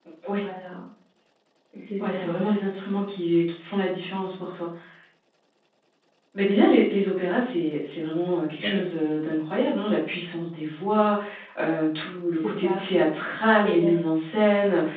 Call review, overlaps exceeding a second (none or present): none